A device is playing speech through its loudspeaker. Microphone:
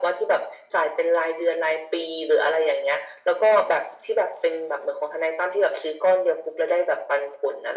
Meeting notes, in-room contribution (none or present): none